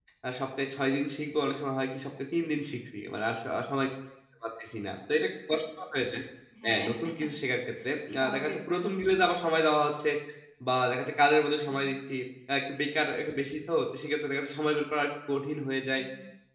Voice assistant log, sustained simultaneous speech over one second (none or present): present